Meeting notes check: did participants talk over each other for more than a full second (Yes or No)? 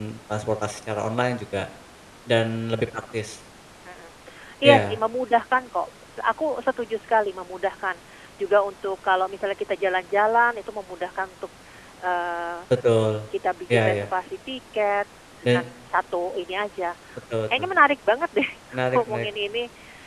No